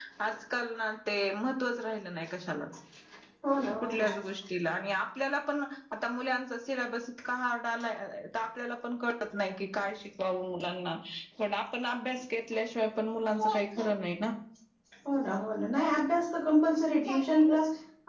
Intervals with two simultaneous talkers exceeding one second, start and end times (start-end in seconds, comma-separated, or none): none